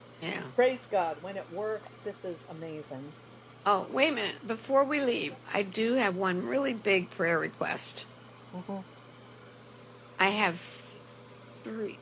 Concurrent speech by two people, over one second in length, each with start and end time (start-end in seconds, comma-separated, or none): none